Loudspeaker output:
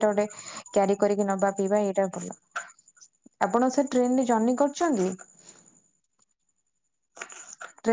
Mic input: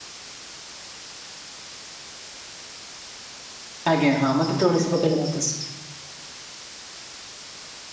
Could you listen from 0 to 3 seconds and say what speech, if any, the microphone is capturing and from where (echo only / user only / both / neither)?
neither